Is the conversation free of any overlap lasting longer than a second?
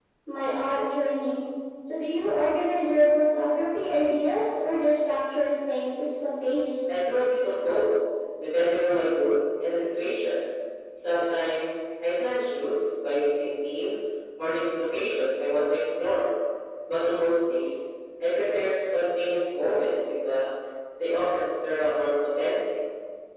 Yes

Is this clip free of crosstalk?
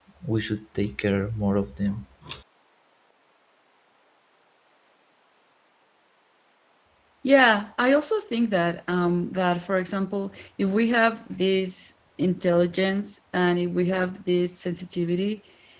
Yes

